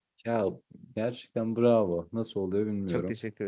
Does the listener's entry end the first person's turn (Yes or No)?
Yes